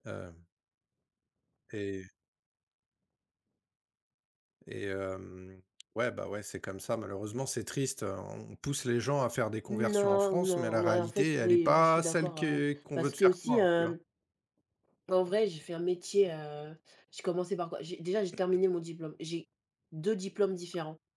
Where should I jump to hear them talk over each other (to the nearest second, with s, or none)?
10 s